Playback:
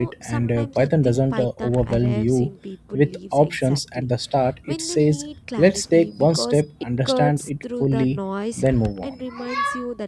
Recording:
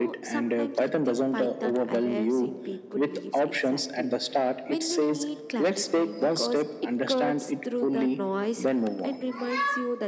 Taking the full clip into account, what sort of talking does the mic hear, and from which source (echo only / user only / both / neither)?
echo only